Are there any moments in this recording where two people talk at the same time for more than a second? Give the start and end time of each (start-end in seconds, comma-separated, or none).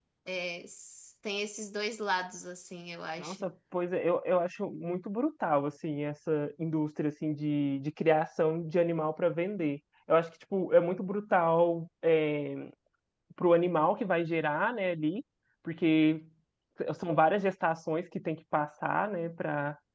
none